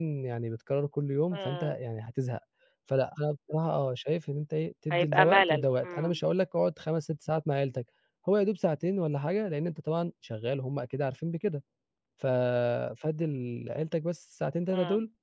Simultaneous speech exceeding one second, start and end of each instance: 4.9-6.2

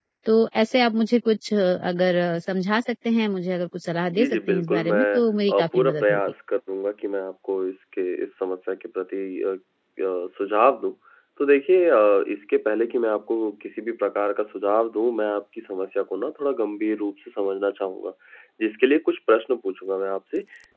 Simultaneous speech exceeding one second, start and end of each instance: 4.1-6.2

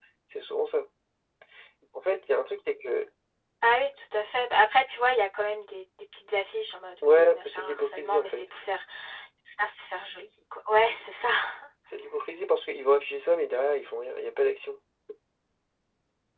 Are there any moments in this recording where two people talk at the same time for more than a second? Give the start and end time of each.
7.0-8.4

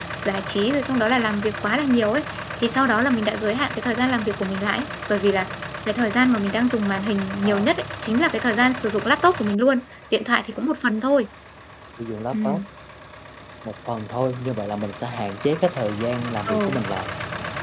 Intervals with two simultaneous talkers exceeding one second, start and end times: none

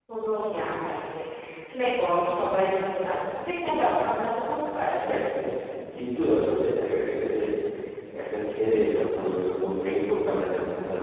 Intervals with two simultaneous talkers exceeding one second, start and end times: none

